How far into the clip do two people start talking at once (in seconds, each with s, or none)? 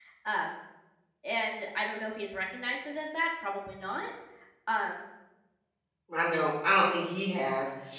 none